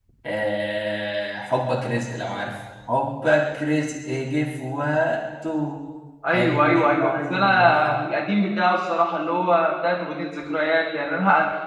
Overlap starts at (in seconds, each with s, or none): 6.3 s